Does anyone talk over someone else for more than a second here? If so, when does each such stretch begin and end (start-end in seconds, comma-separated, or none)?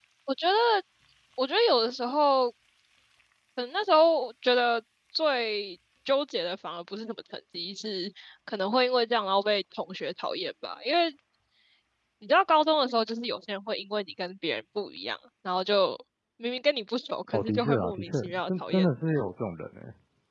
17.3-18.9